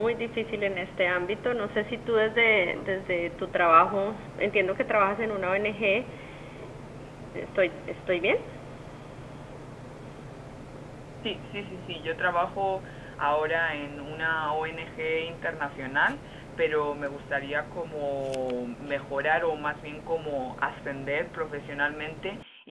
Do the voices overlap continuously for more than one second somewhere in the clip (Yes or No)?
No